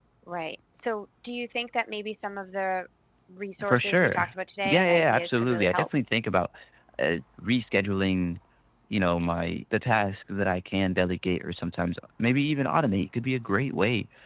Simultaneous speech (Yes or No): Yes